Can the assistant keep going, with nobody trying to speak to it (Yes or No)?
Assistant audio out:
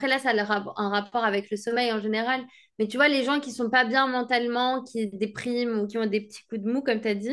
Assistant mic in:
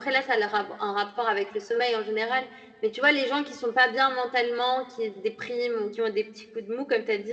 Yes